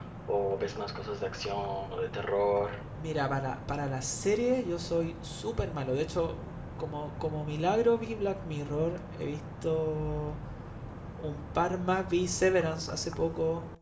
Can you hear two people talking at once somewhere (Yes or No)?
No